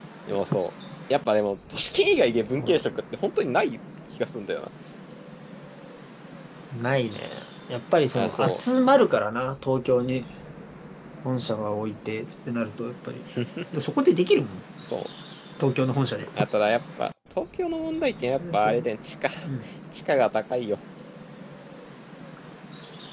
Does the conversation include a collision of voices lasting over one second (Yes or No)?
No